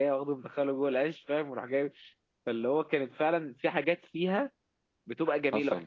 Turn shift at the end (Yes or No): No